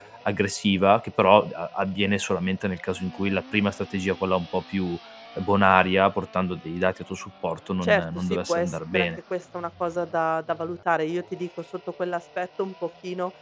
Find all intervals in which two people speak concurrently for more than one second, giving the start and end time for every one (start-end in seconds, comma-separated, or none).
7.8-9.1